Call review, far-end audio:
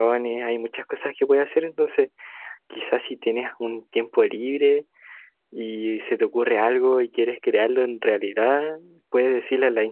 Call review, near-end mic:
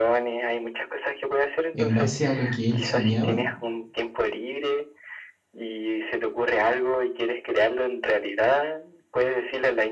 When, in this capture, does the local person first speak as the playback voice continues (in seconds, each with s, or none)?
1.7 s